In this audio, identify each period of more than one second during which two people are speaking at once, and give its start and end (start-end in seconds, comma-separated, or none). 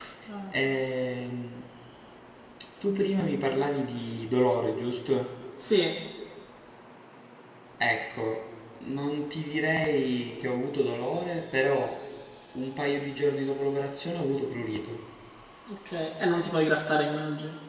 none